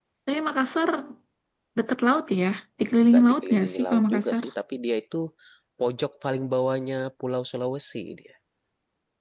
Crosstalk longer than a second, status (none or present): present